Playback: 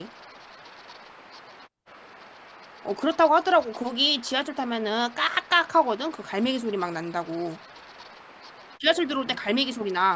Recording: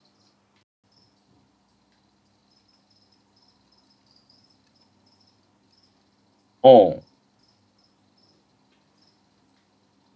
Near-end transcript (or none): 어.